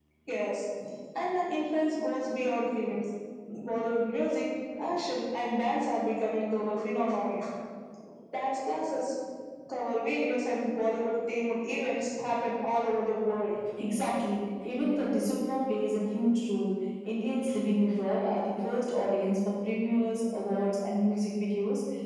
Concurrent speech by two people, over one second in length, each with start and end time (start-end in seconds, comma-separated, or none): none